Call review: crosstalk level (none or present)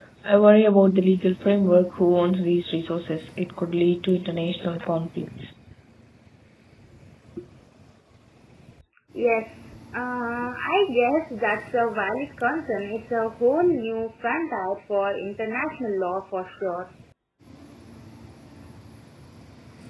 none